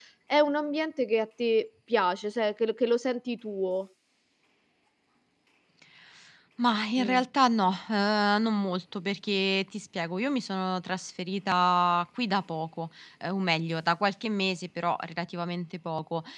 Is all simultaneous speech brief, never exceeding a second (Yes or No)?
Yes